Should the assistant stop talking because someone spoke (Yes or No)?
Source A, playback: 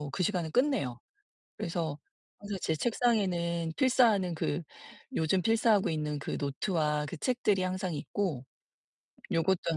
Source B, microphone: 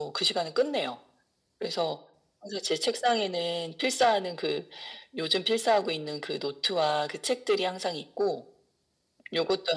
No